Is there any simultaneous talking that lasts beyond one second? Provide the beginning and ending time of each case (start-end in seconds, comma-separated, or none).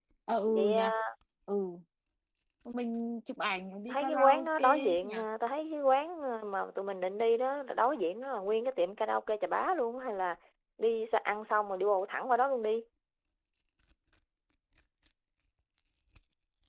3.9-5.1